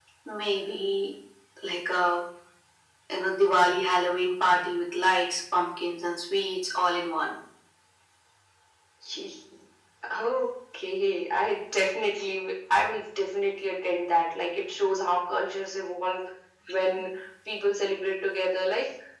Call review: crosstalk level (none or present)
none